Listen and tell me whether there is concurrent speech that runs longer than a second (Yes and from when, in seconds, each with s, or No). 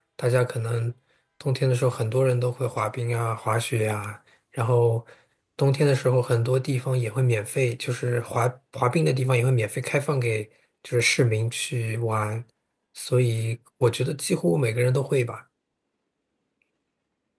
No